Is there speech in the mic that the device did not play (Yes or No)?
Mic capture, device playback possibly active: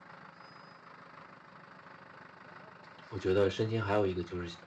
Yes